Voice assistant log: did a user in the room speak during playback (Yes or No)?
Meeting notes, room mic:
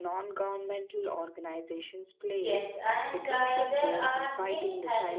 Yes